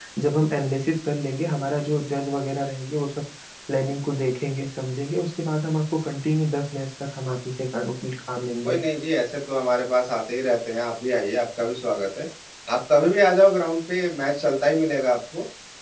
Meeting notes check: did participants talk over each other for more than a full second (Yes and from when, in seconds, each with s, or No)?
No